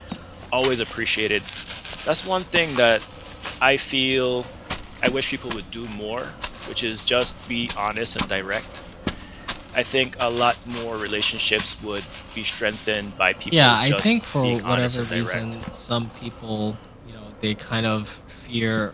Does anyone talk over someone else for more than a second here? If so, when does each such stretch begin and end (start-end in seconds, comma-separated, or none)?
13.6-15.4